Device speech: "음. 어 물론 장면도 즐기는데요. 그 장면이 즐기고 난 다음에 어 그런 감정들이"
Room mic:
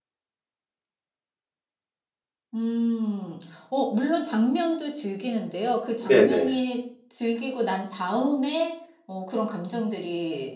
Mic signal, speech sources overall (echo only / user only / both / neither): both